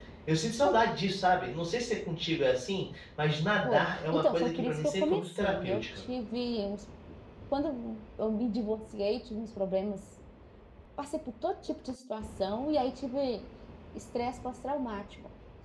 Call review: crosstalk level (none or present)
present